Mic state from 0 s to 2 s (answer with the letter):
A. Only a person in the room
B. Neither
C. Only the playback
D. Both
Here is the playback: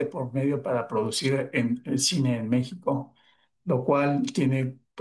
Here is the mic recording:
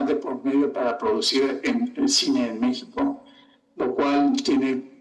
C